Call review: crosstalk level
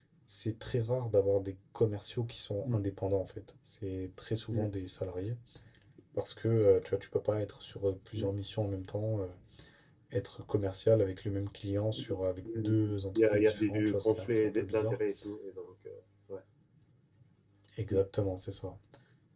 present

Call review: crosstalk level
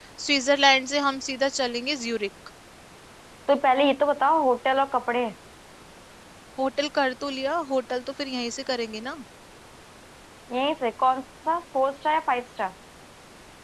none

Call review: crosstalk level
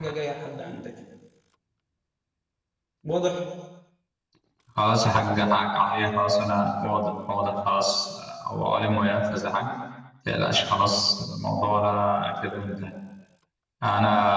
none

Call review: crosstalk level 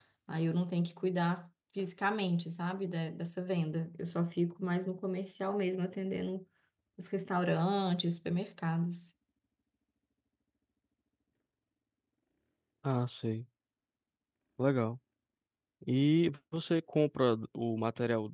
none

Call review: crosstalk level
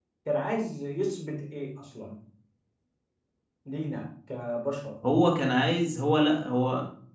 none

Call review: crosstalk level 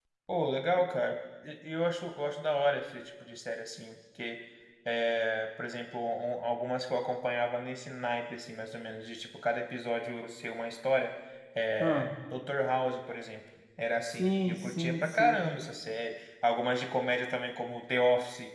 present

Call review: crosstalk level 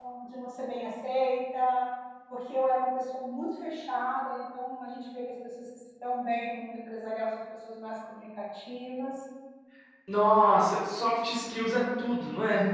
none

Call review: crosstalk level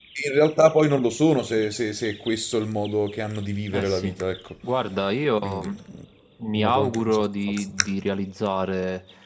present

